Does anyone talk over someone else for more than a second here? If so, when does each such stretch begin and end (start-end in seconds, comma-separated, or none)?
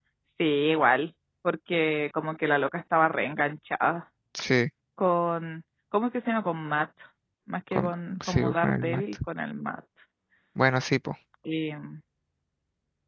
7.7-9.2